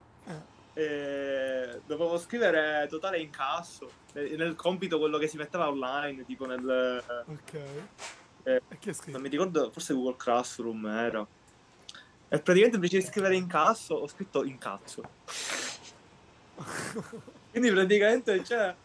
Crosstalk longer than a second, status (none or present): none